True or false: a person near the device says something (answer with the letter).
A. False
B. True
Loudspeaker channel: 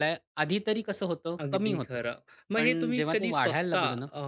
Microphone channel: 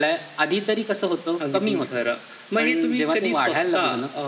A